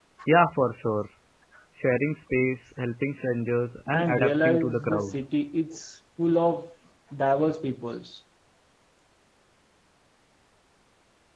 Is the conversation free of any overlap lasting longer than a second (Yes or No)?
No